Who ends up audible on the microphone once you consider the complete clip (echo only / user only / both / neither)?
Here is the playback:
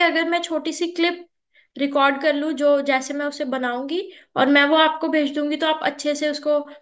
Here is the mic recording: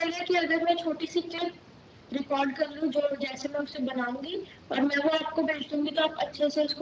echo only